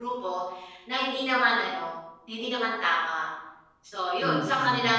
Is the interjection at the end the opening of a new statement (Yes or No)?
No